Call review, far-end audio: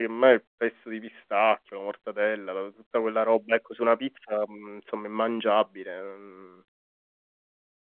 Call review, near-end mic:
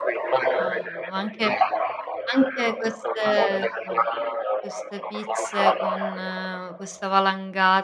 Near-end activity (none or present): present